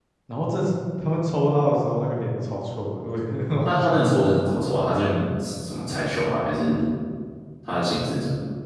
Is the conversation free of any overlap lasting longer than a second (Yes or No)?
Yes